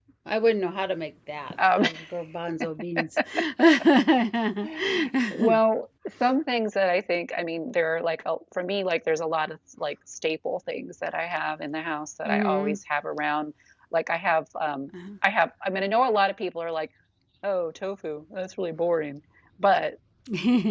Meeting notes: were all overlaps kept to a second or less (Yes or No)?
Yes